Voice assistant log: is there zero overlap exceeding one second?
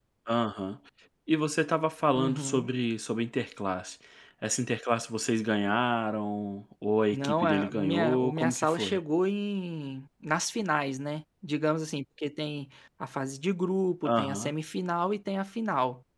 No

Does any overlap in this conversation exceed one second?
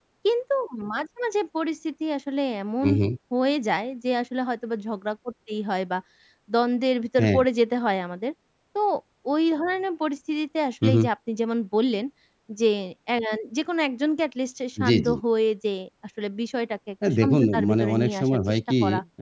Yes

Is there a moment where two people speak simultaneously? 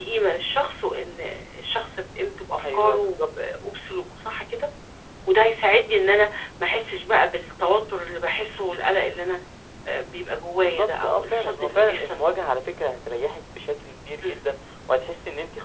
Yes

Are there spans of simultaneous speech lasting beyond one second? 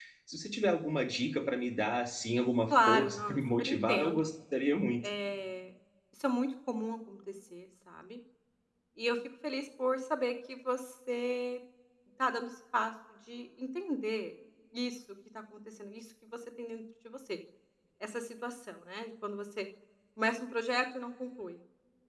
Yes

